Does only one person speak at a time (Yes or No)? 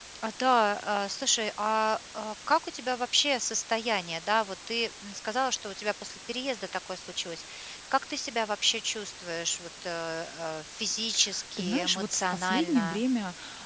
No